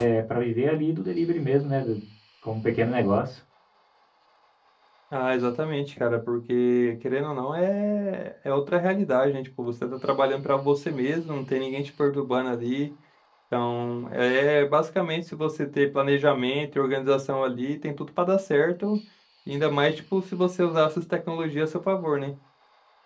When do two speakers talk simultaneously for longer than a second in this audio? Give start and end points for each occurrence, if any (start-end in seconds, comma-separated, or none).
none